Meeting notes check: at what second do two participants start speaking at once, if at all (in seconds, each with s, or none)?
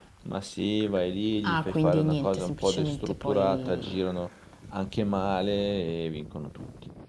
1.4 s